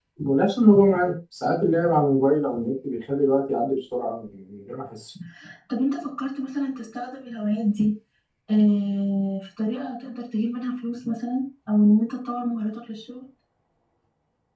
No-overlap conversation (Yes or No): Yes